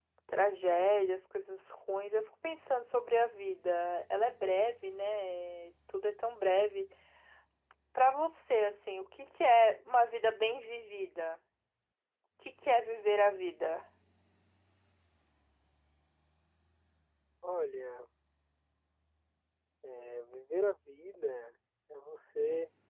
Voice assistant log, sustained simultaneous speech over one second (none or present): none